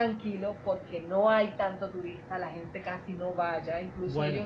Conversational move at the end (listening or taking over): listening